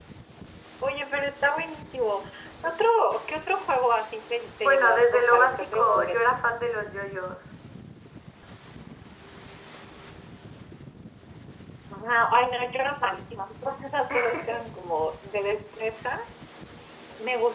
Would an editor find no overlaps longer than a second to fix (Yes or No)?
No